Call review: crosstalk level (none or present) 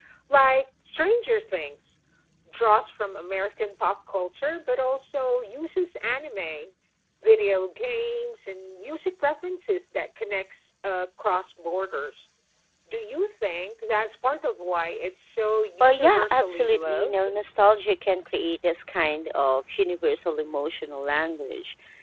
present